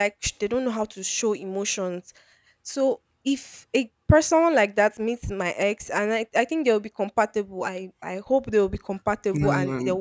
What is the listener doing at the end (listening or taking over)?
listening